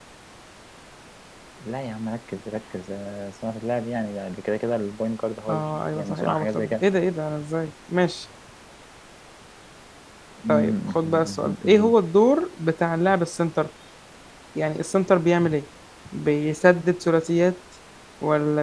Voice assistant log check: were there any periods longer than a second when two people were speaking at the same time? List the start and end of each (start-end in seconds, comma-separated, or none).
5.5-6.8, 10.5-11.9